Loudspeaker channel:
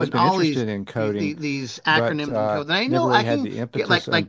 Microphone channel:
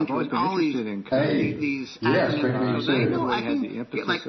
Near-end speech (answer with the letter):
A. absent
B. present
B